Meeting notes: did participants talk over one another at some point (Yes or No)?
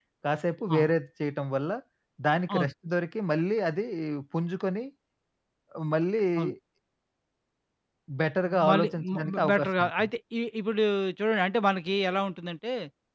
Yes